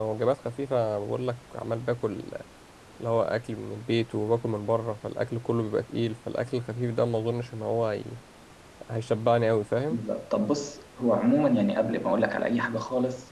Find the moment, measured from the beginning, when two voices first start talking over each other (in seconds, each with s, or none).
none